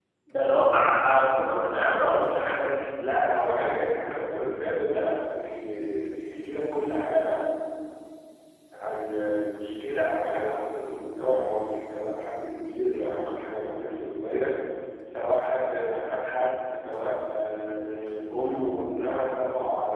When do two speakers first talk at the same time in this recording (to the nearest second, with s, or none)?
none